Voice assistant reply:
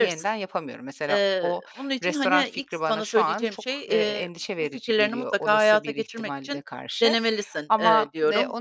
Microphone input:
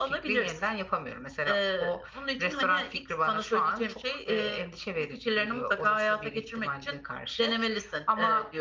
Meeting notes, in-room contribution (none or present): none